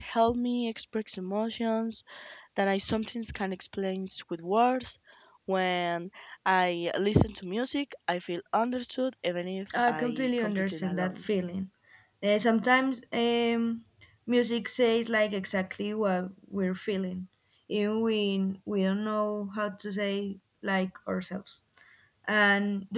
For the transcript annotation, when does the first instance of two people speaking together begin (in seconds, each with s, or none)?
9.7 s